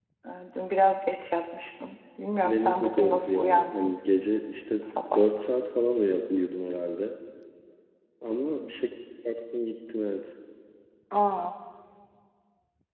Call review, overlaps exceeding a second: present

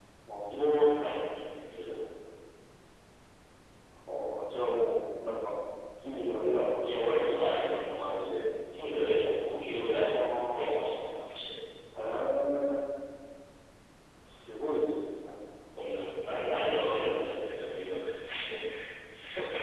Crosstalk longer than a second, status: present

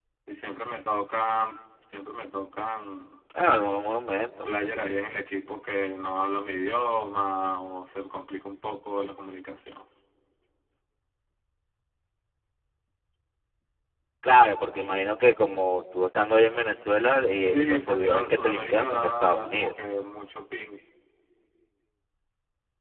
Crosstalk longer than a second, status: present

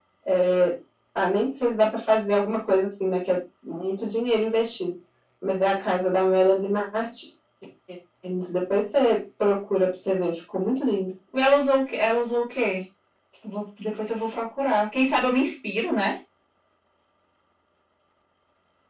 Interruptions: none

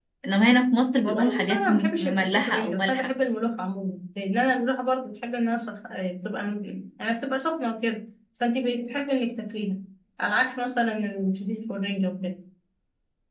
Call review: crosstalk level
present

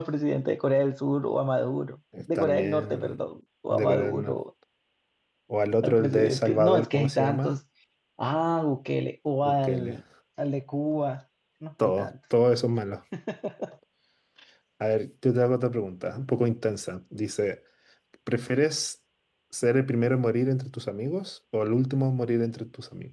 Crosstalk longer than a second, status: present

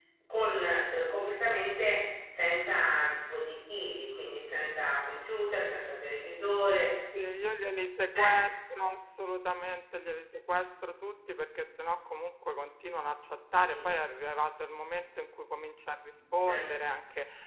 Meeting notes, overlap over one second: none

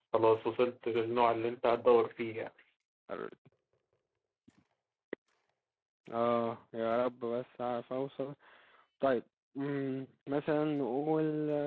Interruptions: none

